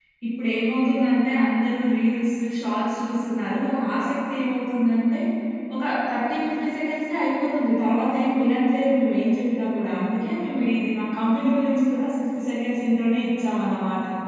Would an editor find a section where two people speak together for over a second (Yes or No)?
No